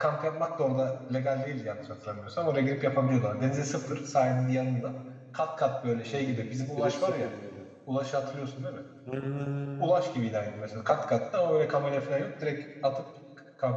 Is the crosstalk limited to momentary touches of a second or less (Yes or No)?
No